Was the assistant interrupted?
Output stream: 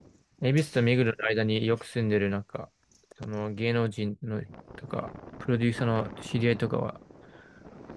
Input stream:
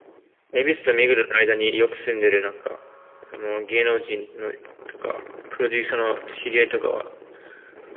No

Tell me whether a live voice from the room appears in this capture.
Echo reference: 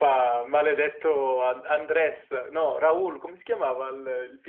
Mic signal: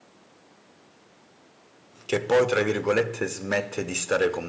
Yes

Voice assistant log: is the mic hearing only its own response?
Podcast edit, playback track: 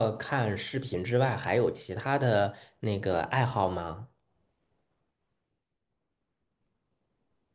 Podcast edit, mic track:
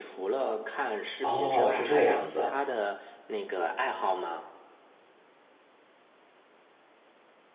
No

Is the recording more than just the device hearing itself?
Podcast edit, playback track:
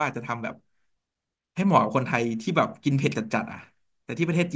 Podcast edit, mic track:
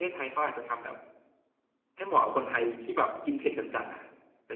No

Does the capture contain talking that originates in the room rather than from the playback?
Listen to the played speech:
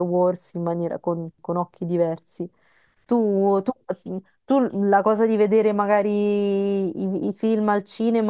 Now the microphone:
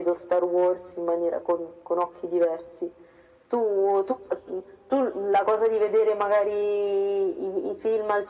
No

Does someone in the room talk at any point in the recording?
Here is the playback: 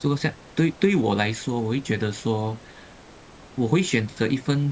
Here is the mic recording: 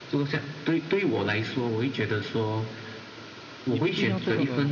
Yes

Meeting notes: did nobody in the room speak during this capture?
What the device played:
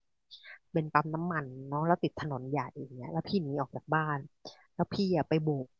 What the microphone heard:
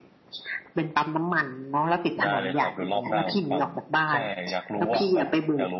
No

